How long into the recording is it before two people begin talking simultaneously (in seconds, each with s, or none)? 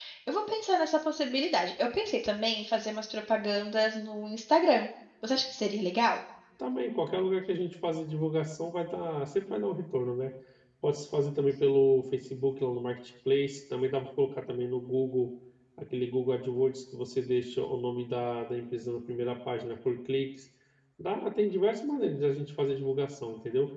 none